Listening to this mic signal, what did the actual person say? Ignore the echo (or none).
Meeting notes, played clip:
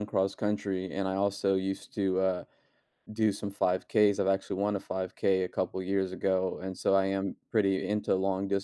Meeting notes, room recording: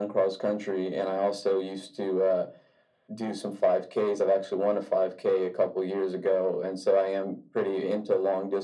none